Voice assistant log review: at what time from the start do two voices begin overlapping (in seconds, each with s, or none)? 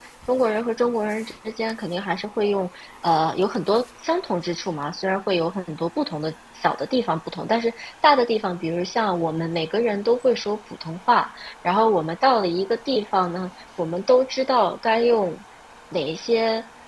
none